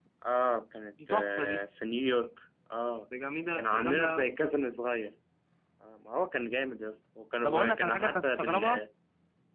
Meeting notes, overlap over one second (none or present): present